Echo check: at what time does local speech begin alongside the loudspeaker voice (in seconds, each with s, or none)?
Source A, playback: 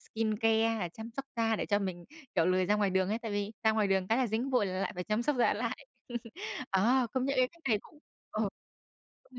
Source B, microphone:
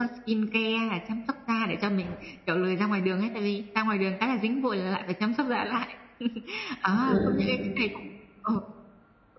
6.9 s